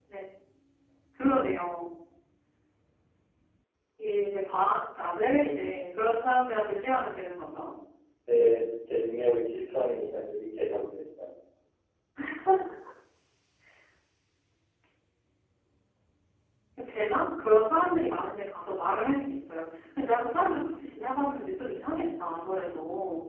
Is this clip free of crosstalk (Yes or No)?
Yes